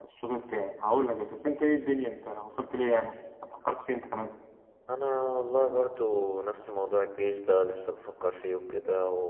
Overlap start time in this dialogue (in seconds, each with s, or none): none